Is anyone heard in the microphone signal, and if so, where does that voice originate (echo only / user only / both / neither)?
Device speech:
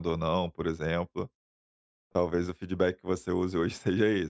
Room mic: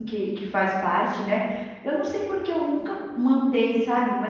user only